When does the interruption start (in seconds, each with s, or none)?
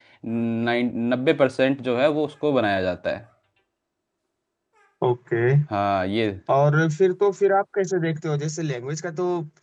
none